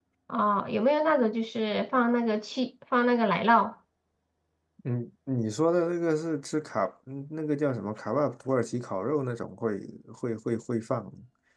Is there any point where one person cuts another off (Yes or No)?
No